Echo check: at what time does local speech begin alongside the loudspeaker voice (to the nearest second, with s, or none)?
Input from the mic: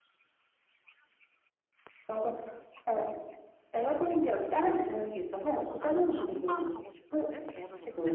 6 s